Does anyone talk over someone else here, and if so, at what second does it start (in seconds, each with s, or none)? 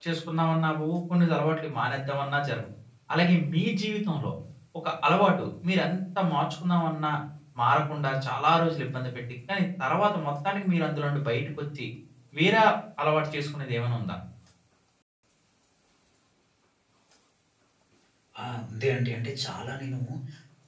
none